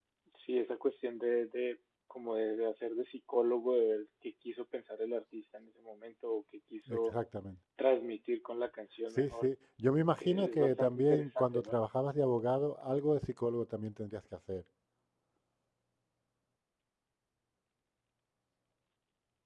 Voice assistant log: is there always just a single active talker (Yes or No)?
No